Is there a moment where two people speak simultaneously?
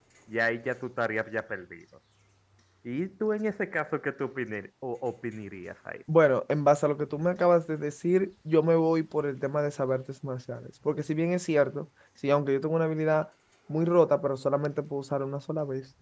No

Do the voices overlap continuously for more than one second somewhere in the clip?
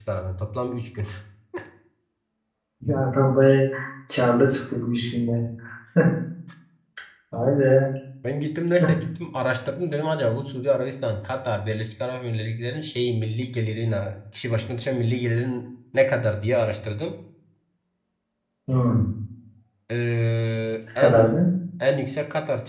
No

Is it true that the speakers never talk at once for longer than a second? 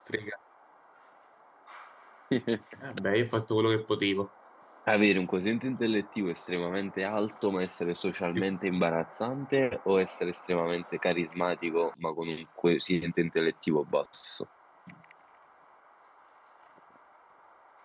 Yes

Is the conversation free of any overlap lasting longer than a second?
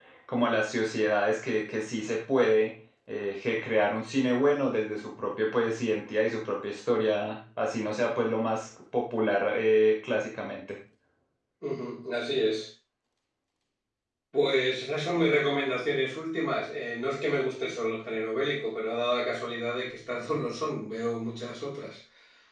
Yes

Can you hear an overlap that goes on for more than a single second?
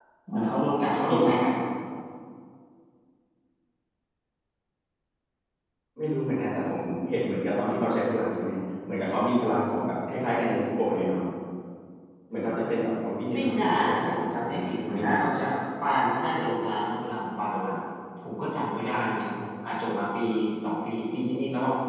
Yes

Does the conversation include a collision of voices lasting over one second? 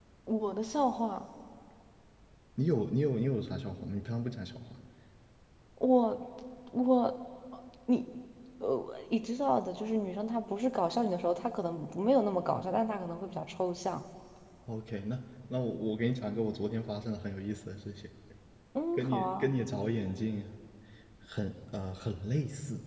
No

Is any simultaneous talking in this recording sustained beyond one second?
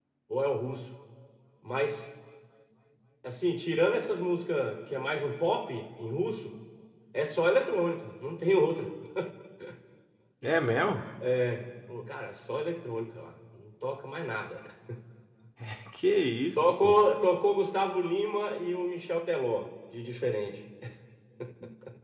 No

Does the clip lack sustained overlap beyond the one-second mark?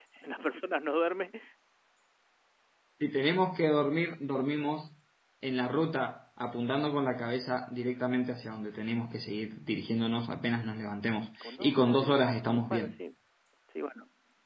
No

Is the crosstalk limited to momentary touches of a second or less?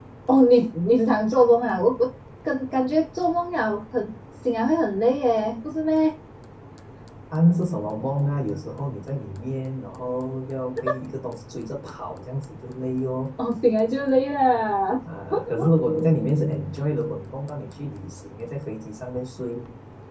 Yes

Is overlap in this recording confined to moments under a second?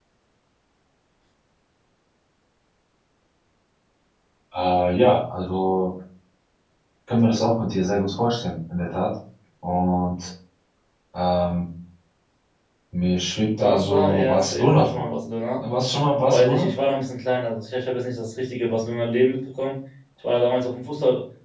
No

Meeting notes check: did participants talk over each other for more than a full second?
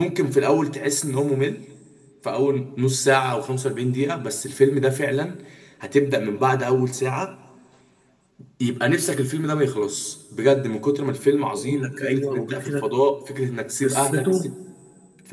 Yes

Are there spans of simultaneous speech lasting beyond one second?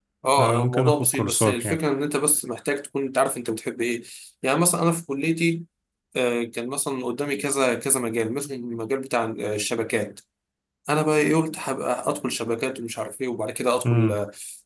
Yes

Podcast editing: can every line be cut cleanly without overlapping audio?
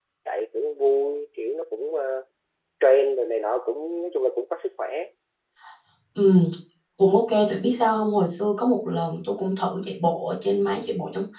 Yes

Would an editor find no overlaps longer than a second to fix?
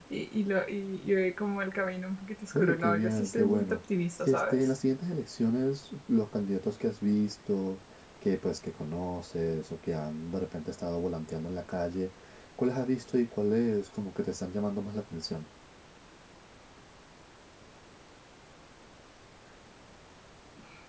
No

